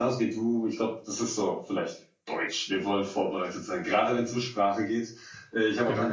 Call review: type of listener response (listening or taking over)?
listening